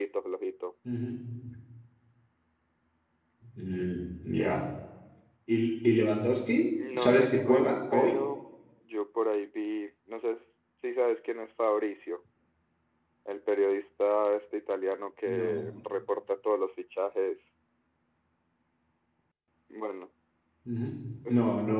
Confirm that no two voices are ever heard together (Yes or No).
No